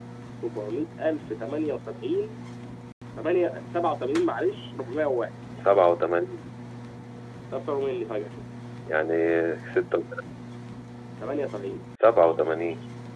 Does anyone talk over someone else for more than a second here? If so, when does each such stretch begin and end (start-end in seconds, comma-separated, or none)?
none